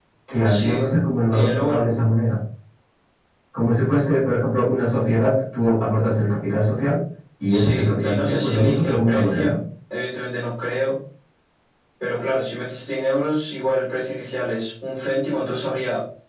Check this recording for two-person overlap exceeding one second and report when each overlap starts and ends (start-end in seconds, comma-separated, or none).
7.5-9.5